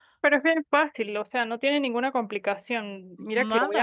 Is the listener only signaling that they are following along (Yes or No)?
Yes